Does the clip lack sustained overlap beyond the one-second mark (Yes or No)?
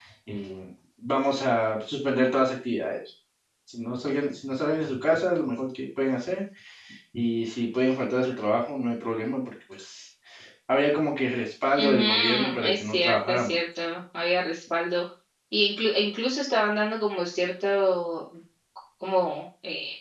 No